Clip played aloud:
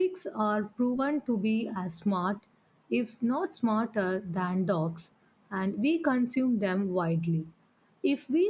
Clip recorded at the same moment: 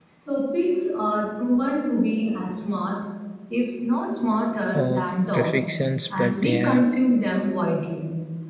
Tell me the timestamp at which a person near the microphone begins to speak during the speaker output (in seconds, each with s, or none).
4.7 s